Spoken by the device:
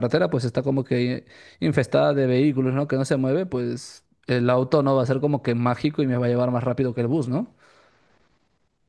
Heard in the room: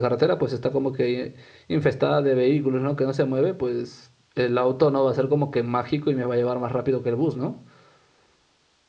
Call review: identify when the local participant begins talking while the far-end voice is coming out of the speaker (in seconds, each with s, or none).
none